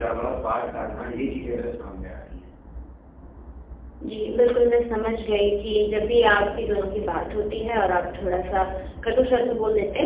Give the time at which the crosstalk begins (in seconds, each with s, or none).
none